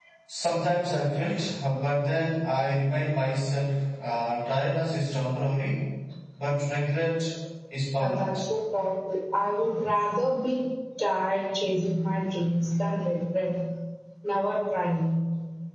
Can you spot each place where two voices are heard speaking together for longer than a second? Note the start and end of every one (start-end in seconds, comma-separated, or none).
none